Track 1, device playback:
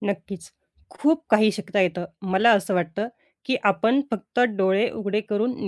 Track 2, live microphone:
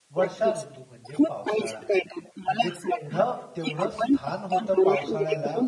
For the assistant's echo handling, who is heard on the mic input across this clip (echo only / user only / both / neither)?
both